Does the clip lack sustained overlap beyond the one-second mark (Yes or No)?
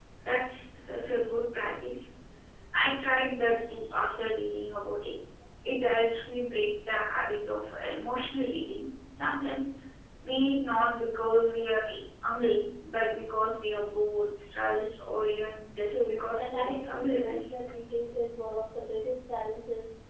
No